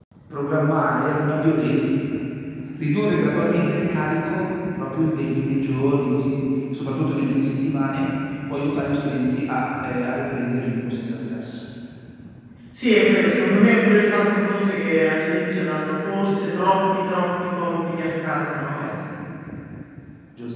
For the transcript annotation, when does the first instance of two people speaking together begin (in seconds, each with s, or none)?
none